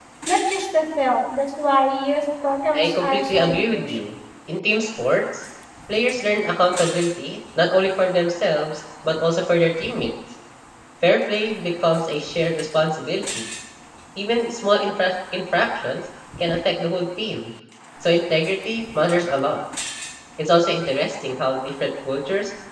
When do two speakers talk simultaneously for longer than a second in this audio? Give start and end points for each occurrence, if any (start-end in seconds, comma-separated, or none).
2.7-4.1